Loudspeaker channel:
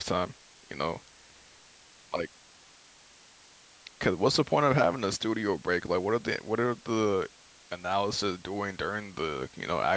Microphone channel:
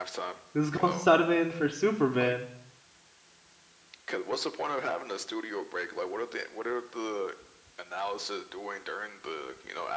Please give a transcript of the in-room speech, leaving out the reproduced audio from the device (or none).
This is going Sutterman for Superman.